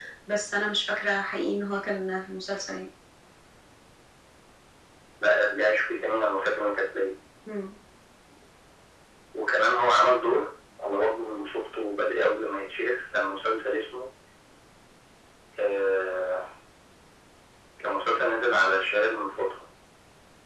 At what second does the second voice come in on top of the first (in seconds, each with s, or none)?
none